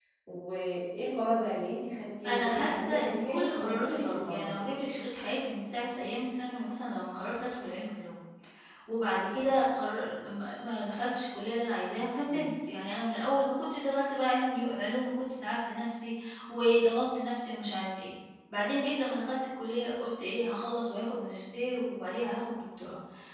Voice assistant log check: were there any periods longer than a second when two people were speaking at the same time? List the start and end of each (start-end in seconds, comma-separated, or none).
2.2-4.8